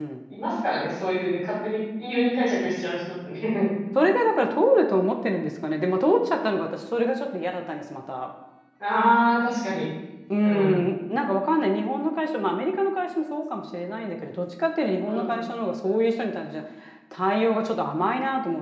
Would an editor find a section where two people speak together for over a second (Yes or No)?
No